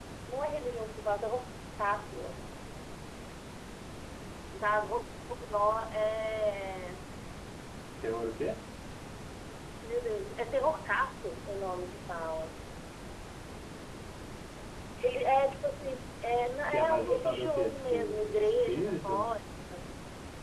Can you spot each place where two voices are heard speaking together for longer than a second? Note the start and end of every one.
16.7-19.3

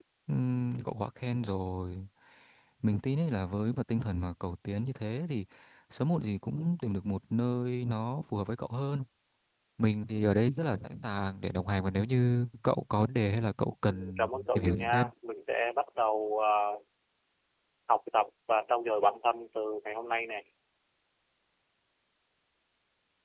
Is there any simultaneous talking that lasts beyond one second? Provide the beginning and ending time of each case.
13.9-15.1

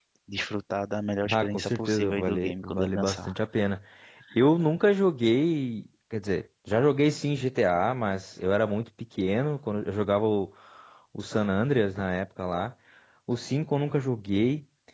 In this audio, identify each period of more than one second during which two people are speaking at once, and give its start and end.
1.3-3.4

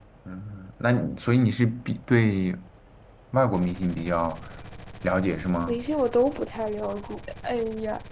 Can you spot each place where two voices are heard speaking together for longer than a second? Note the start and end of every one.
none

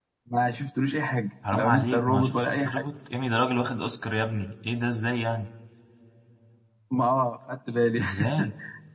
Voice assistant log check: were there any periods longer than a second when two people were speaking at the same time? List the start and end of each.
1.5-2.8

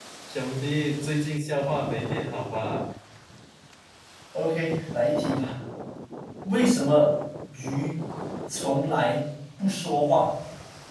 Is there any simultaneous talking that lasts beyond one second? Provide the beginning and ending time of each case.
none

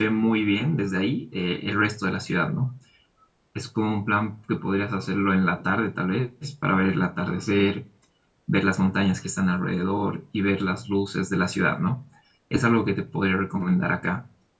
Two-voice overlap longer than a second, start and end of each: none

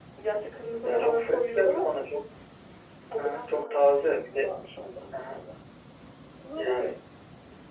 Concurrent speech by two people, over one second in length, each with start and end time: 0.8-2.1, 3.2-4.4

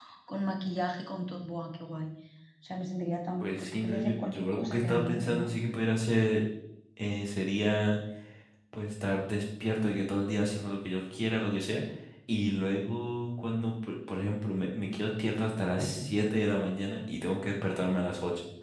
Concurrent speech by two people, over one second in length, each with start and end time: 3.4-5.5

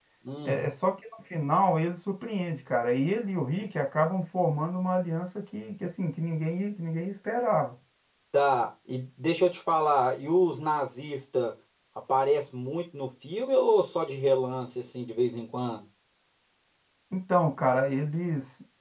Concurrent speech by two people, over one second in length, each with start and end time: none

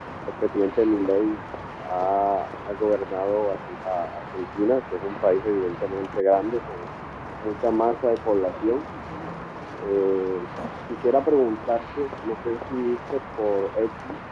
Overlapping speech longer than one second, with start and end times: none

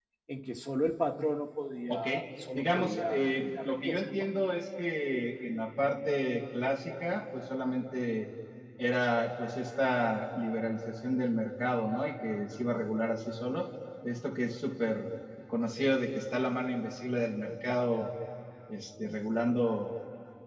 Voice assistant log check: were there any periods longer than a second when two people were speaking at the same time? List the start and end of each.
2.5-4.3

